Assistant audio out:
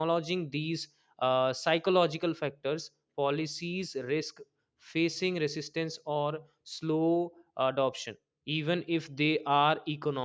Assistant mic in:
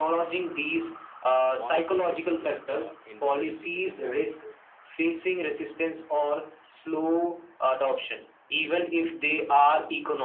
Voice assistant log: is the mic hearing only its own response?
No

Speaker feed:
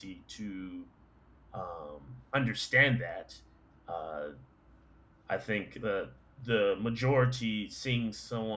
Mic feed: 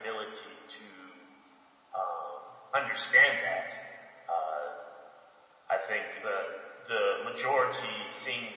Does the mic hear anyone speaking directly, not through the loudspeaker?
No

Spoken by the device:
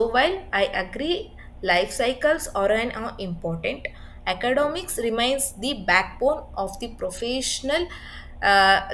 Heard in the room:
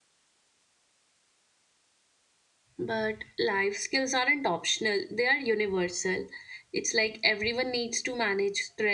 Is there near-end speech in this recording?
Yes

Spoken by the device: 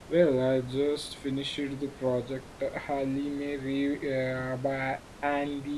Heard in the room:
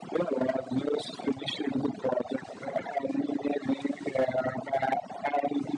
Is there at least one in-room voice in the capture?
No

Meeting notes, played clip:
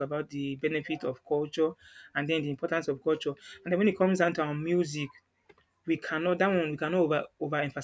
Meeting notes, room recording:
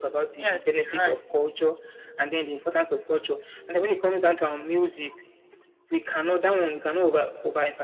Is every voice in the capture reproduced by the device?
No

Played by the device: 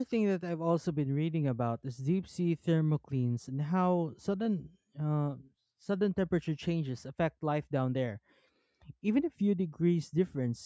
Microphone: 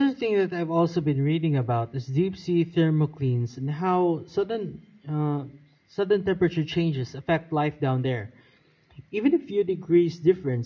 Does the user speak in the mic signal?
No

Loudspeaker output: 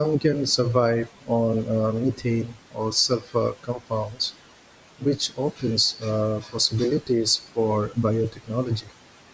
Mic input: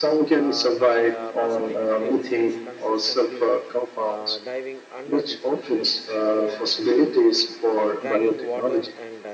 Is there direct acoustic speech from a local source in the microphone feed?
Yes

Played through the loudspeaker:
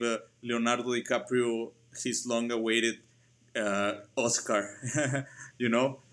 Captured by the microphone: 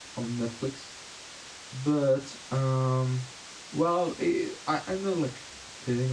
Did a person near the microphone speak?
Yes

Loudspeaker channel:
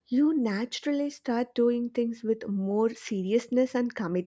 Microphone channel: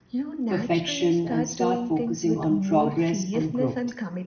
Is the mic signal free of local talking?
No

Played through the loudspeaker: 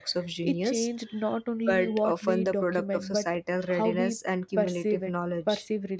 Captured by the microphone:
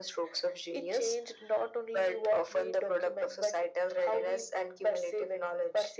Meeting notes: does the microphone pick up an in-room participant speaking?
No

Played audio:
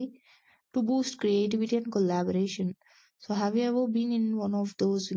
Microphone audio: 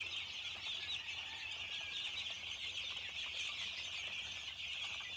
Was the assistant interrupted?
No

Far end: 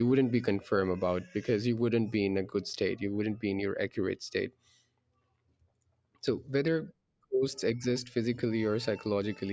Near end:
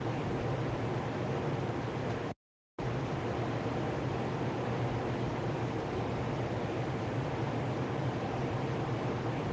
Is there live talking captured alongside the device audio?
No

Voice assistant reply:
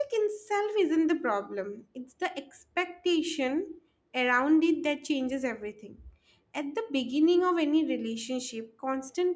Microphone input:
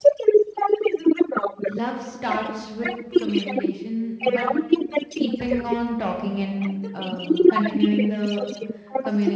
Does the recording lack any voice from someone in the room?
No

